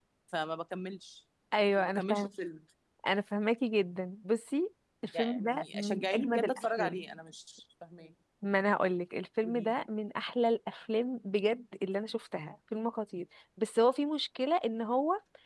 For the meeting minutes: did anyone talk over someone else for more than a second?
Yes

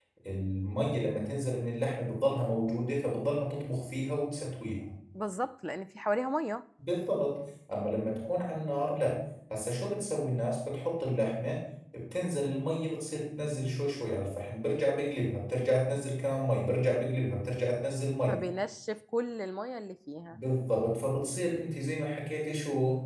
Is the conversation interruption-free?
Yes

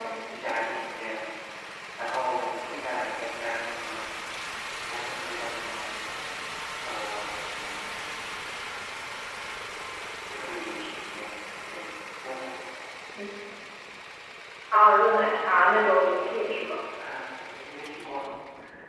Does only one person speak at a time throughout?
No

